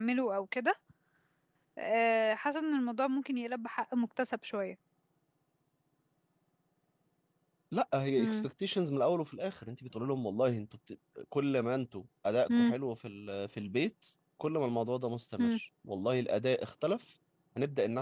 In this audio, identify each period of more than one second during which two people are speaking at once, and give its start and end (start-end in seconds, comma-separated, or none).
none